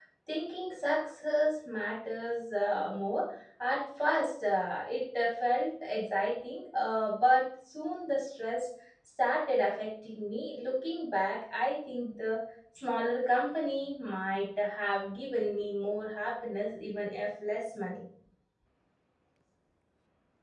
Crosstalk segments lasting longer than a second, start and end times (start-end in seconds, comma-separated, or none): none